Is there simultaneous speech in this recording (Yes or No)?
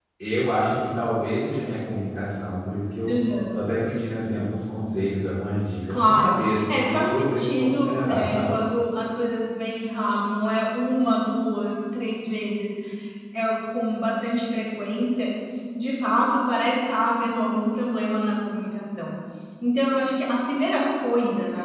Yes